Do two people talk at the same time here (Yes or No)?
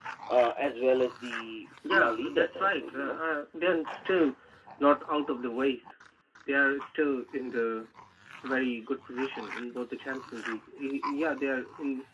Yes